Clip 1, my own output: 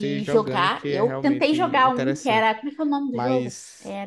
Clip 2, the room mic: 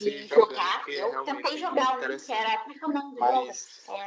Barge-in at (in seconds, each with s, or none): none